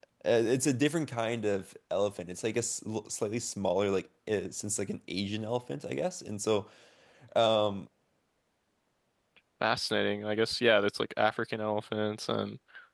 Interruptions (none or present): none